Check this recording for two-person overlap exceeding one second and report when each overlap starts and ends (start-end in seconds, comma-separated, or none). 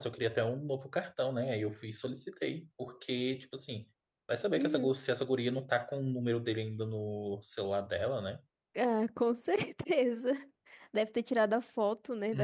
none